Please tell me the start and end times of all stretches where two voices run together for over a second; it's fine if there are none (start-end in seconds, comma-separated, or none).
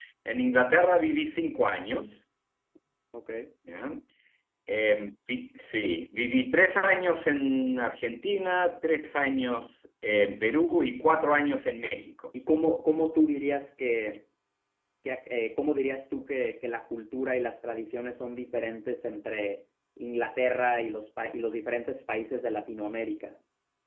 none